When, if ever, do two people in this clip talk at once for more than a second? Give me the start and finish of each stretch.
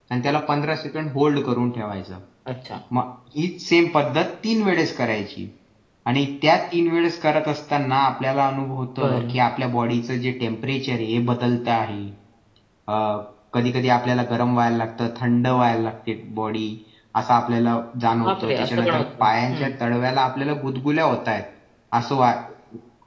18.2-19.7

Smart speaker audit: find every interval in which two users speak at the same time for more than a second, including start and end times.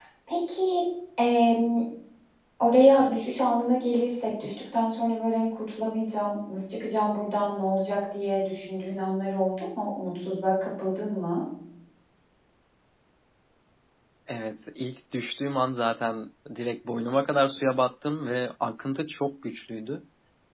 none

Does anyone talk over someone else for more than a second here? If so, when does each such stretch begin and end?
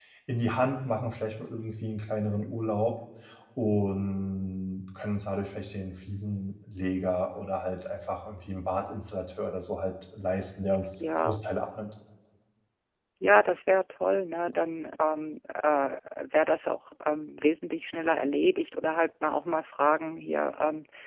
none

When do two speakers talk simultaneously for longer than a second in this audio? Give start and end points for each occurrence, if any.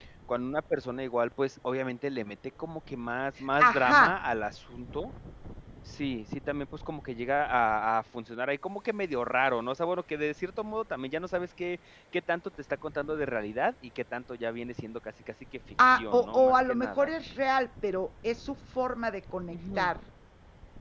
15.8-17.1

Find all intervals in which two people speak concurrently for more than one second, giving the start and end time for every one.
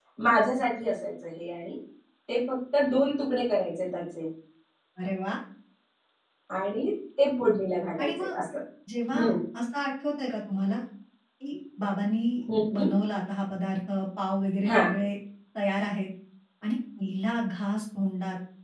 none

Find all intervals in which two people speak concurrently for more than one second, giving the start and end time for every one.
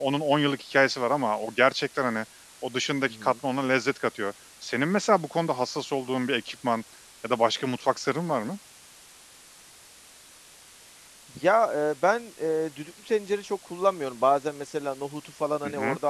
none

